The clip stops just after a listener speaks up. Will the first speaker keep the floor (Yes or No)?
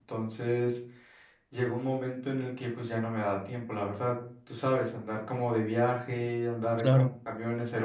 Yes